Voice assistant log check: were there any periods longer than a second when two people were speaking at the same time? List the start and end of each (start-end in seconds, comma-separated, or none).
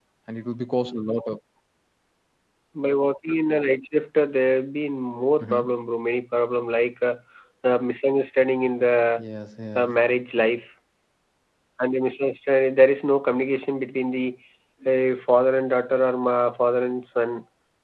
none